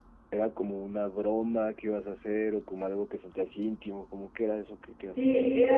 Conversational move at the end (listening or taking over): taking over